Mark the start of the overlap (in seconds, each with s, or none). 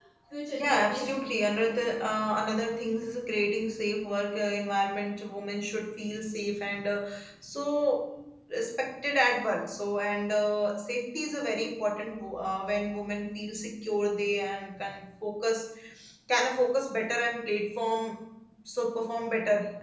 0.5 s